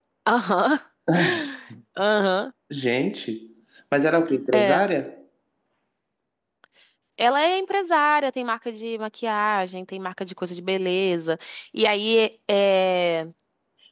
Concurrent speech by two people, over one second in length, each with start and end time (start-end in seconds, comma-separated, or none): none